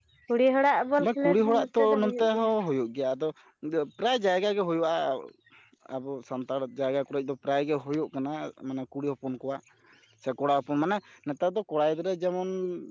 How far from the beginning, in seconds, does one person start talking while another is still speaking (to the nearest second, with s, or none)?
1 s